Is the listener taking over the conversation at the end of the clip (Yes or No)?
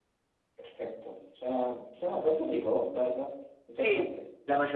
Yes